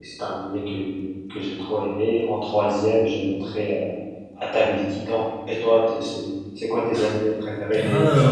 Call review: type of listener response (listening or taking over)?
taking over